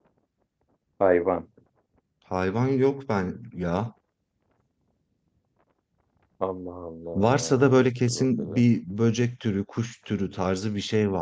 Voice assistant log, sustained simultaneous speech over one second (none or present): present